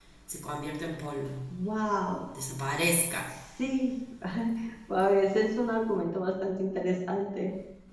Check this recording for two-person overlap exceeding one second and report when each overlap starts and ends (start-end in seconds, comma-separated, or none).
none